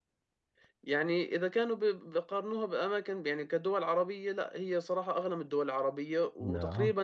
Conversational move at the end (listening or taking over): listening